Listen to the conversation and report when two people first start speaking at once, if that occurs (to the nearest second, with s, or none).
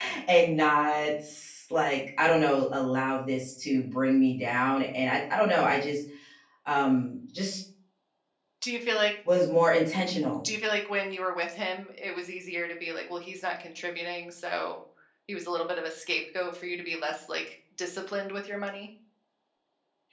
none